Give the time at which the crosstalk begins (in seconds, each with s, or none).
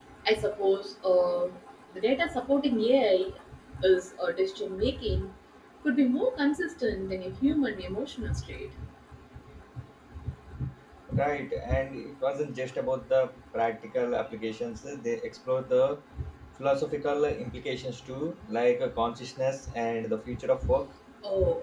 none